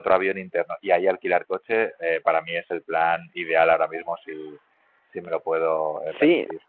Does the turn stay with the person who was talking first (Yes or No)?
No